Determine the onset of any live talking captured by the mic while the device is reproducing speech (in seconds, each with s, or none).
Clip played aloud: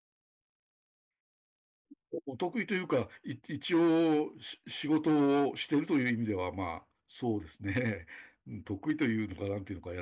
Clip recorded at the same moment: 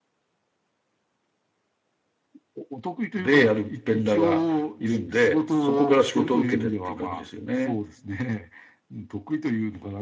3.2 s